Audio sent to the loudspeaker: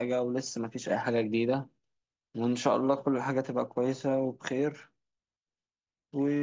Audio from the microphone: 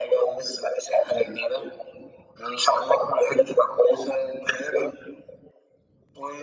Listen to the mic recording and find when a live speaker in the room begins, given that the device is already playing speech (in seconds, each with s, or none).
none